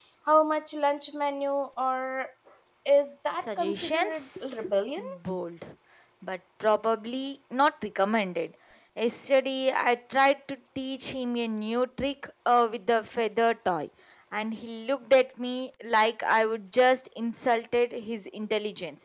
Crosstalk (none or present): present